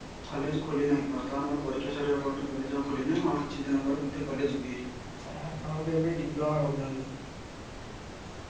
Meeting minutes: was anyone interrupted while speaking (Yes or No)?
No